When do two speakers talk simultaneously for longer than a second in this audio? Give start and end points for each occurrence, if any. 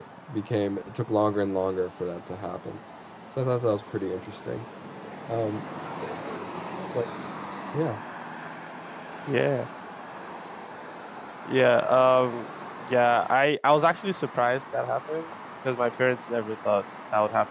none

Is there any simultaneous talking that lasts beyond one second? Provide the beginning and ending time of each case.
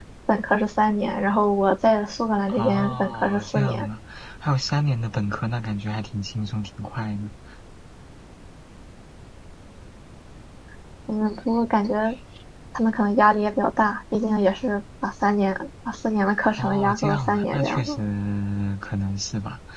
2.5-3.9, 16.6-18.0

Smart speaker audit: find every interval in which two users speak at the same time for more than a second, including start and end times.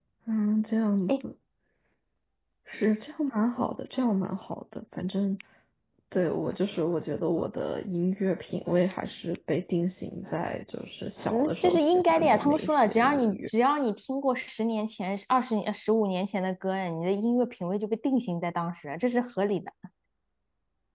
11.3-13.5

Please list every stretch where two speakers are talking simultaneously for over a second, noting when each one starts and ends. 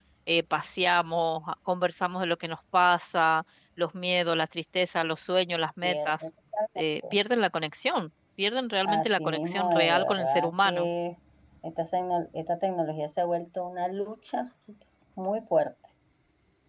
8.8-10.9

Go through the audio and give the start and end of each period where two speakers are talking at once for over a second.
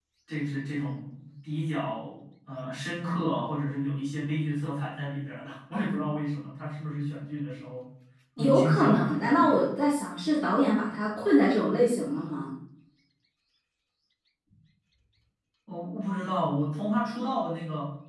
8.4-9.6

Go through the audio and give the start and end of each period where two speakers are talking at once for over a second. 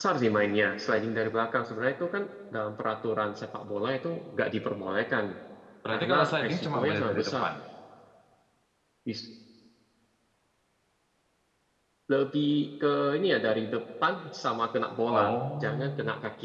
5.9-7.4

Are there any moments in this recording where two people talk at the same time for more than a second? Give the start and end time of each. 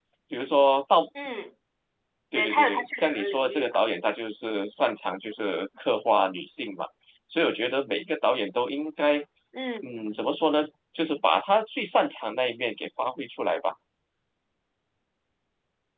2.3-3.8

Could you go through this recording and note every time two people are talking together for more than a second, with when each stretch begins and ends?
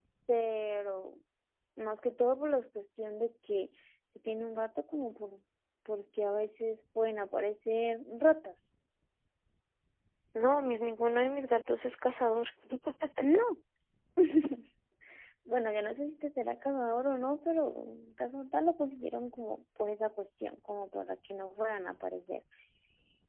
none

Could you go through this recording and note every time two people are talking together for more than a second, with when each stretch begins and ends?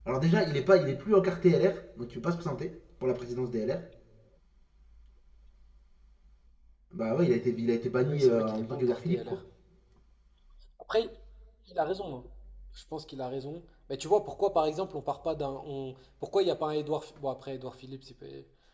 8.1-9.4

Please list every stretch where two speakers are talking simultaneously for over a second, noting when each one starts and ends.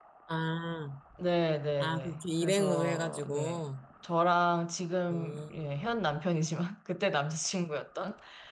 1.8-3.6

